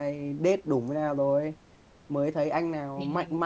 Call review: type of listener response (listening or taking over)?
listening